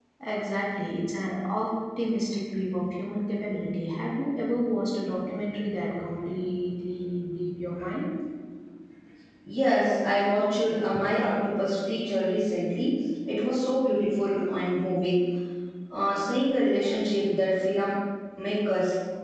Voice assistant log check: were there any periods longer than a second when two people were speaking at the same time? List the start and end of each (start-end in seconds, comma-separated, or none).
none